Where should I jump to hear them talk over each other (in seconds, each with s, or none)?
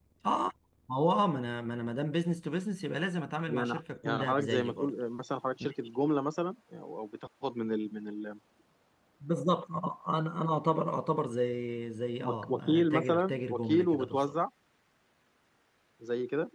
3.5 s